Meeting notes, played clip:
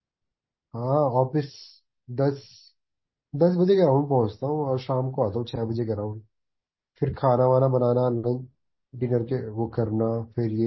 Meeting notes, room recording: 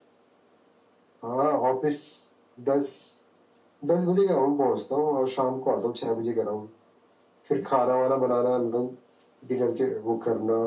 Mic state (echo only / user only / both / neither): echo only